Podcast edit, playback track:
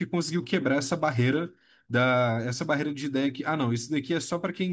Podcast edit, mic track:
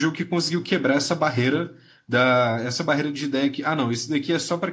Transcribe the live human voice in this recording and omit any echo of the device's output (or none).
none